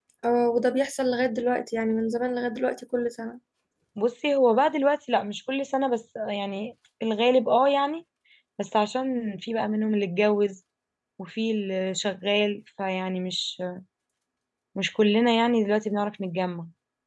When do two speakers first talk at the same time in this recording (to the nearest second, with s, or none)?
none